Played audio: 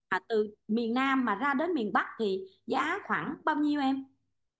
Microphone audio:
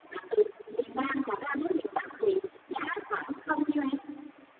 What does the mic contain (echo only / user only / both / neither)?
echo only